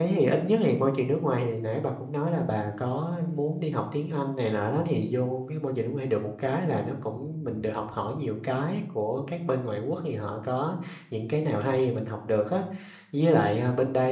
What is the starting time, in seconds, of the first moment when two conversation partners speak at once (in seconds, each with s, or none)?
none